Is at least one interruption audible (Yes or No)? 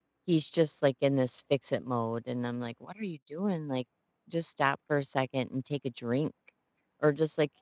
No